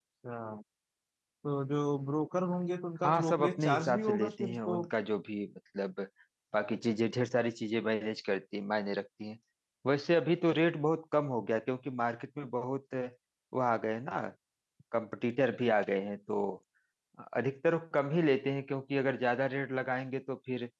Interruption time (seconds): 3 s

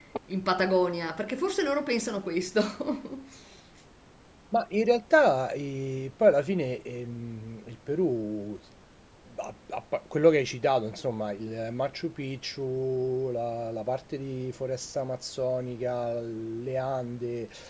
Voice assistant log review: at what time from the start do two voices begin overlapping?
none

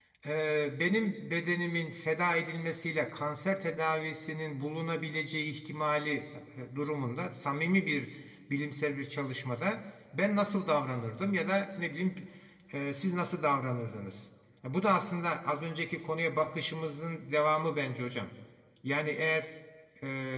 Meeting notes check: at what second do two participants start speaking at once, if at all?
none

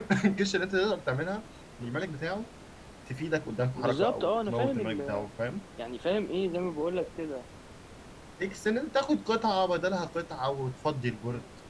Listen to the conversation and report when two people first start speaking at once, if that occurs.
4 s

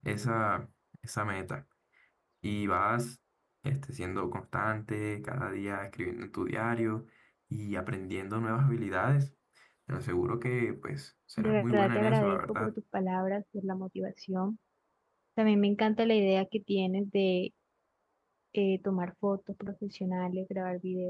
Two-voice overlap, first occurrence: 11 s

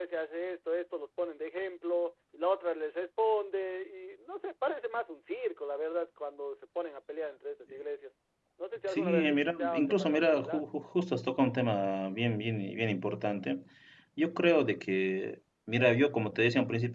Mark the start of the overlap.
9 s

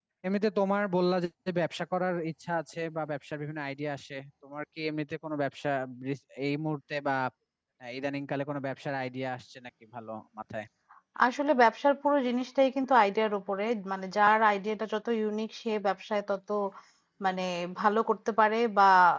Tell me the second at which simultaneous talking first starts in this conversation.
none

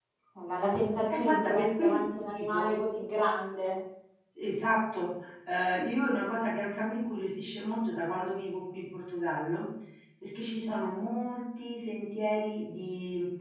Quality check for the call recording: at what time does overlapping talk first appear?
1 s

